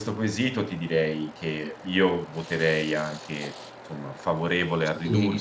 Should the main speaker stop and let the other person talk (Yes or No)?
Yes